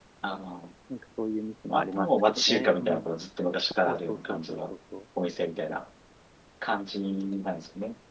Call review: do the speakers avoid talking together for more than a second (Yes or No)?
No